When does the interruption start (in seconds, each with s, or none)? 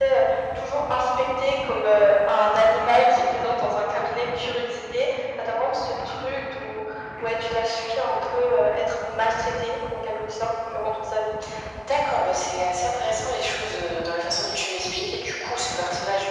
none